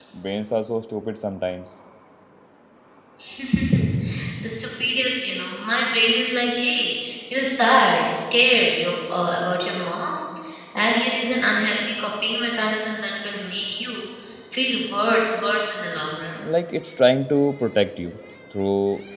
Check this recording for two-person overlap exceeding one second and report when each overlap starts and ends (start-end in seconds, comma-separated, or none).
none